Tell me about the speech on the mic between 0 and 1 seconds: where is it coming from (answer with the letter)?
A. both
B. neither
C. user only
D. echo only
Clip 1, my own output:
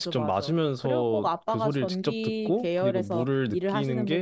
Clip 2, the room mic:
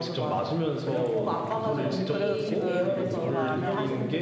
D